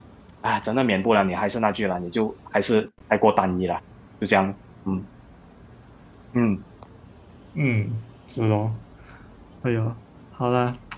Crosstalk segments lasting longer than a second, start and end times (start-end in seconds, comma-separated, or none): none